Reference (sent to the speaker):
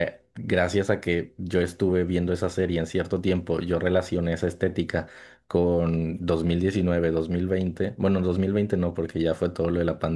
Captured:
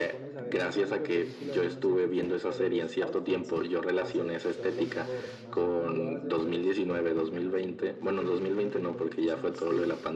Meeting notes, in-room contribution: present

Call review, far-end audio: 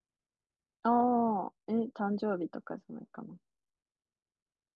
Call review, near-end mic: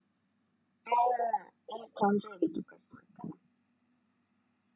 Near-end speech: none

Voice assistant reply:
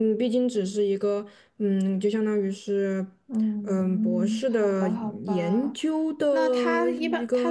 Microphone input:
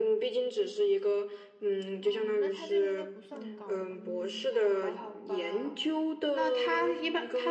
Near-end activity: present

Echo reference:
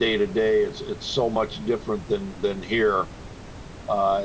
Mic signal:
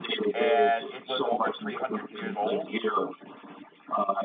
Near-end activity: present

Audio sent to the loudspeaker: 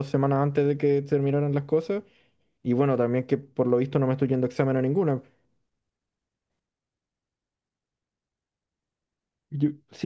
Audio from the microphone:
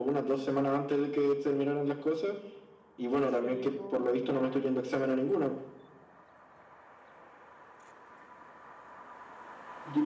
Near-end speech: present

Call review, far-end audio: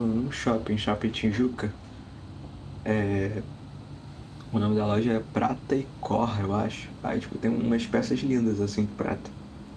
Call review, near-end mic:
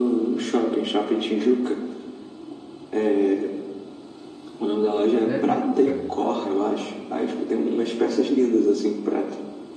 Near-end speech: present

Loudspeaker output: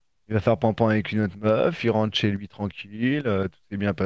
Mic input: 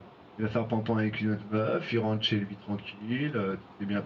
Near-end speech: none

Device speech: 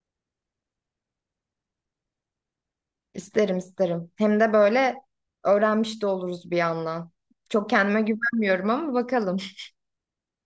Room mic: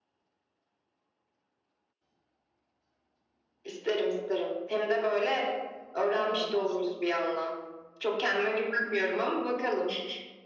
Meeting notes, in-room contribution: present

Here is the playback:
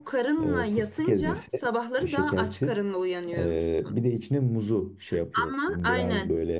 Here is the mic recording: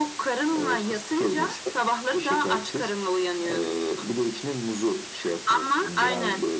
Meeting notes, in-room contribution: none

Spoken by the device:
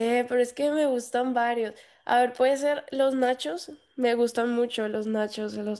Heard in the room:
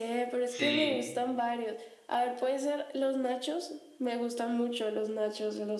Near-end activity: present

